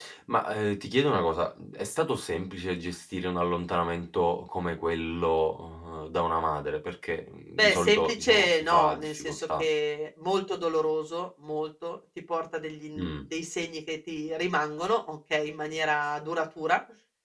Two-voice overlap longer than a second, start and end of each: 7.6-9.6

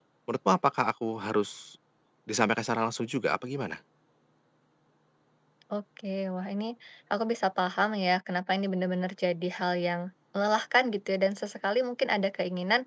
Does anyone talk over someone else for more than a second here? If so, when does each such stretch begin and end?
none

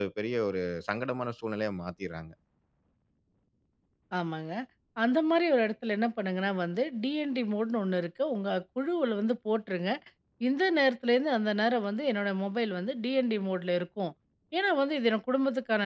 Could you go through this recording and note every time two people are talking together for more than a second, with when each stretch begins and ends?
none

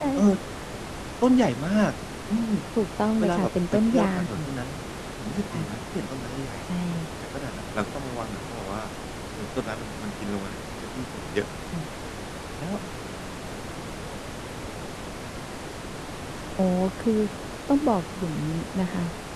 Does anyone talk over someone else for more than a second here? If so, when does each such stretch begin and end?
3.2-4.4

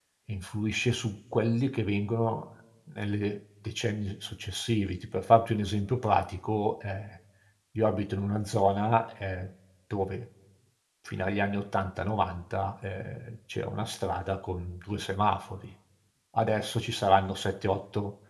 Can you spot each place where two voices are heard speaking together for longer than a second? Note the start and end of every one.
none

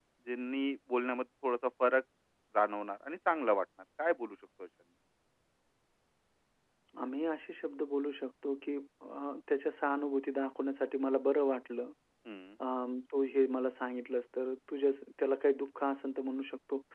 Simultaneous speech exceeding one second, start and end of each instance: none

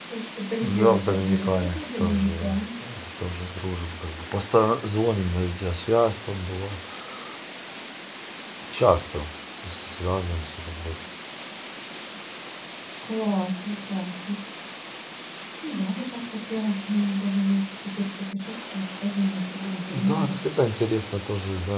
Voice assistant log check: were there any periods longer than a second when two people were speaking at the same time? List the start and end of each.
0.6-2.7

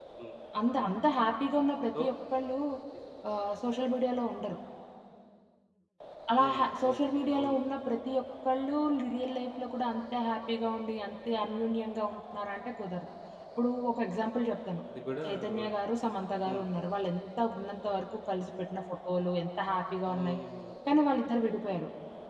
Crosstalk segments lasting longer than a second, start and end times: 6.4-7.6

